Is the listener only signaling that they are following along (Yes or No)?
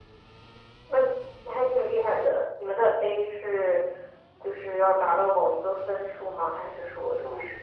No